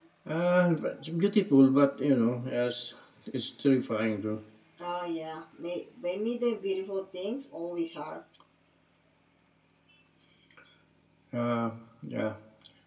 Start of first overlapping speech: none

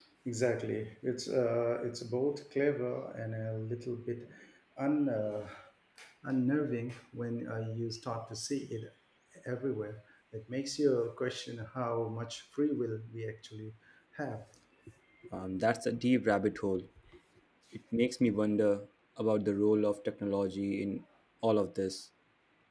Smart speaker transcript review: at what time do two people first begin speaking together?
none

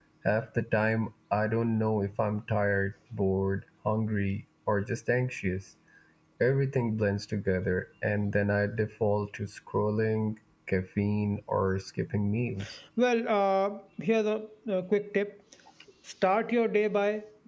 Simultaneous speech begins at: none

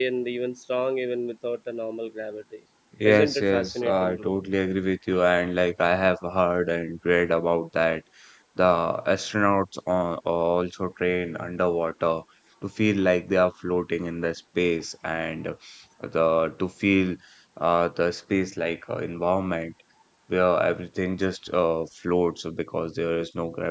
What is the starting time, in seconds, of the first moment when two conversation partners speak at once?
3 s

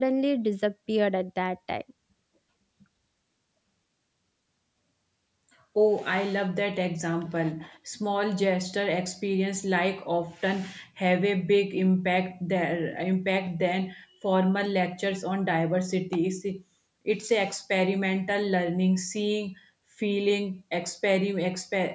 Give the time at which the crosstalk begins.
none

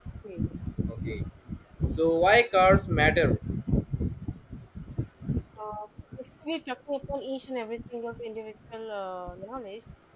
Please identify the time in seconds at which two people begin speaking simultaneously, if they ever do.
none

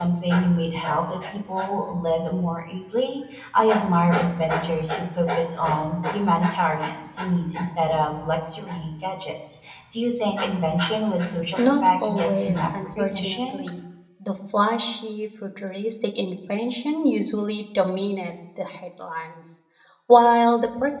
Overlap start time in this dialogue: 12 s

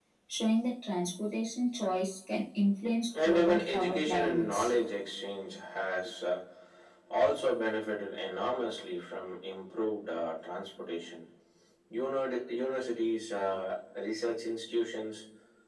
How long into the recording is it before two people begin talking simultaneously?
3 s

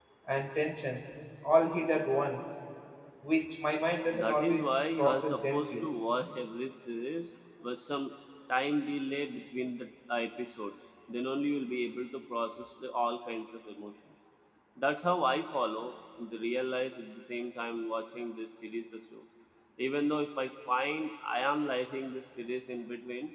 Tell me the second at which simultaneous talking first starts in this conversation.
4 s

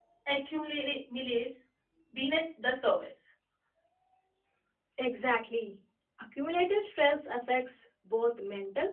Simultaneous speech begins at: none

